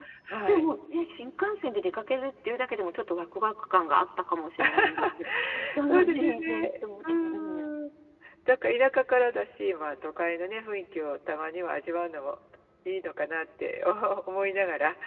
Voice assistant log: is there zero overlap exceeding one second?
No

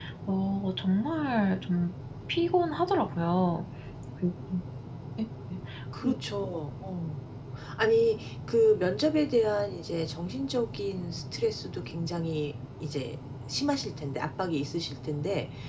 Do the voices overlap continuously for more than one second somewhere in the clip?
No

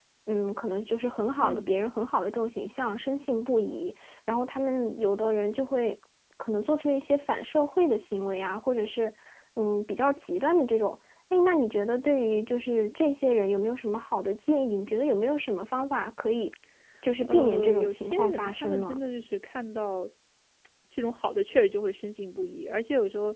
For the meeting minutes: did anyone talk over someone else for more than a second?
Yes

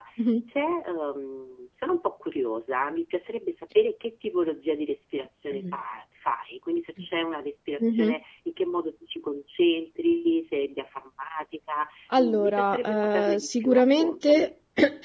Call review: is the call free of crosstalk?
No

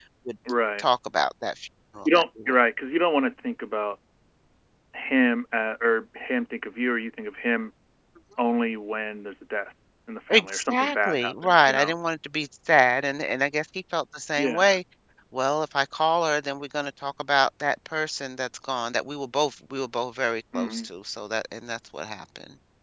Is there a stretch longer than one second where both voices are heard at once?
Yes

